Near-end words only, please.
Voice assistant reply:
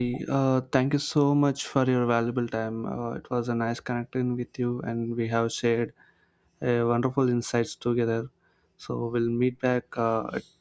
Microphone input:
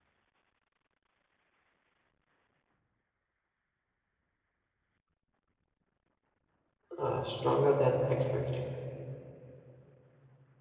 uh, stronger than expected.

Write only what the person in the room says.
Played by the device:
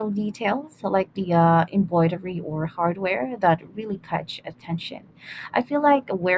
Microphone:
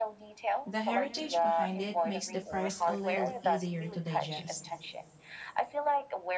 The heritage behind it makes the price a little easier to digest.

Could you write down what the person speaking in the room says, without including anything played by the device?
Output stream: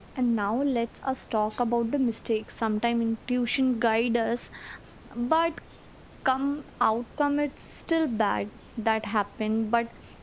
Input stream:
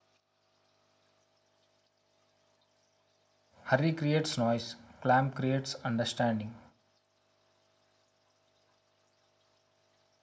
Hurry creates noise, clamp creates understanding.

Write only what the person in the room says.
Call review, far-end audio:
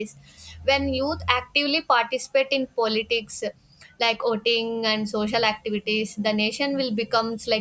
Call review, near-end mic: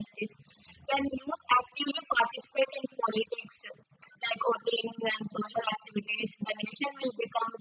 none

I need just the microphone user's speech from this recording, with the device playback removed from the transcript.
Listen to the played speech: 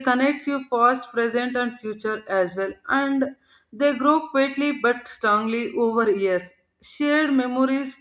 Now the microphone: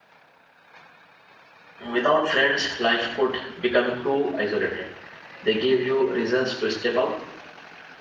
Without friends, life could become too isolated. They give you reasons to step out,

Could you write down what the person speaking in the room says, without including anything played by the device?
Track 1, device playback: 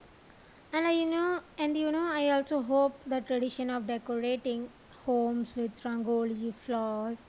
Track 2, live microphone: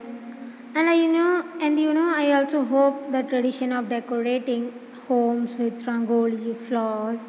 none

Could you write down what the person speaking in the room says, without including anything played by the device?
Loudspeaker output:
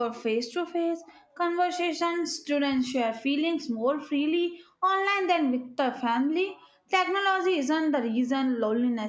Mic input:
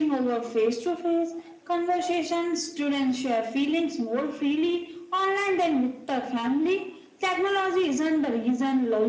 none

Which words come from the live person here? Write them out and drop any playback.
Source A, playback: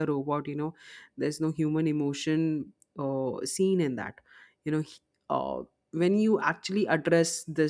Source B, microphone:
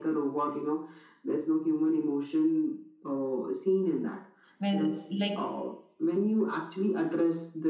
when, like,

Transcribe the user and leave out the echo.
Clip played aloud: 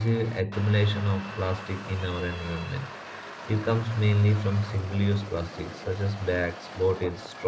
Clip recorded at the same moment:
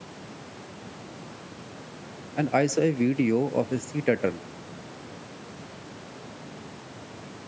and i saw a video of a sea turtle

